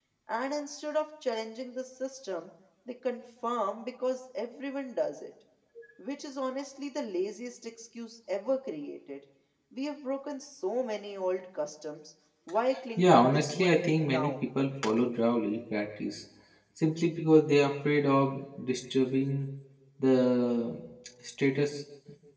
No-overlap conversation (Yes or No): No